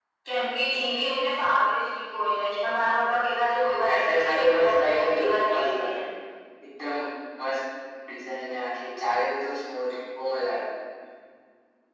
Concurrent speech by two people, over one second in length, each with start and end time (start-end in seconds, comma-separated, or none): 3.9-6.0